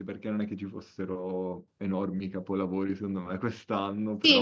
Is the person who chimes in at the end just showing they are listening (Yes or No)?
No